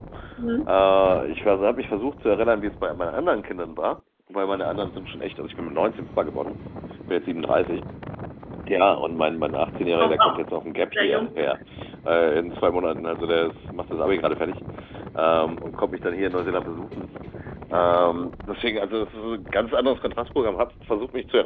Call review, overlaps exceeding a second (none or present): none